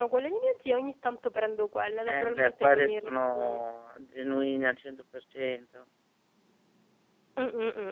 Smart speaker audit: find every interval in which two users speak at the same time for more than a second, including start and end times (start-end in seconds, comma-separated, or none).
2.1-3.6